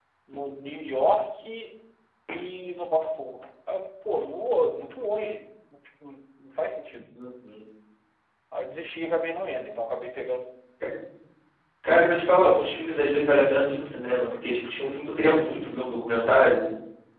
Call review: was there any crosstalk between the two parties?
No

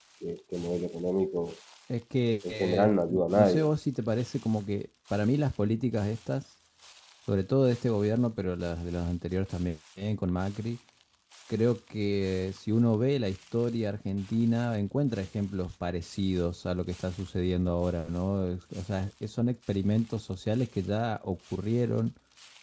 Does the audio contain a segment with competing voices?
Yes, from 2.5 s

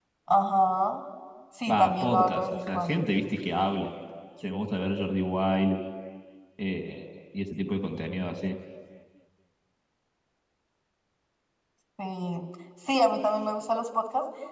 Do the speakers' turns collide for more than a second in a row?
Yes, from 1.7 s

